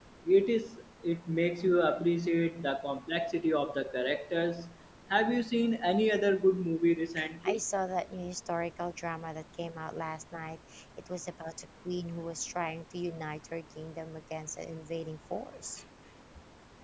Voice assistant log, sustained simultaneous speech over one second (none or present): none